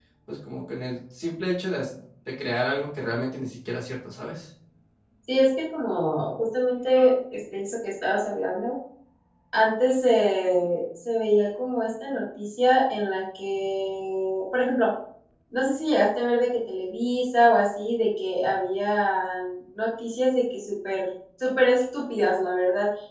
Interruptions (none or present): none